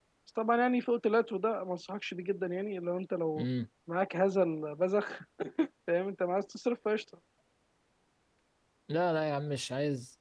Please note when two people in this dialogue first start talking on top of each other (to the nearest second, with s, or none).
none